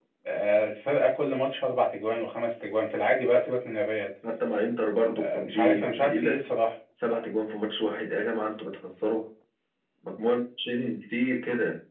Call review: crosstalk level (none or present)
present